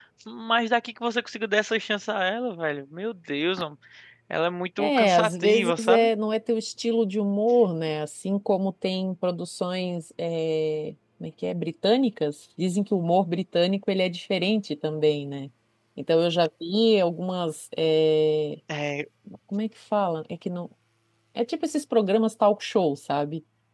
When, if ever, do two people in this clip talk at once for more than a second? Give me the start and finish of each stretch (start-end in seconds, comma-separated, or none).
4.8-6.1